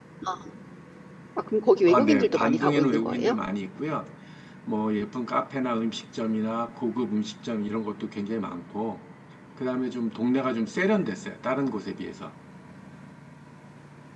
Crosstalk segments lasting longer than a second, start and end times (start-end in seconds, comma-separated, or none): 1.9-3.4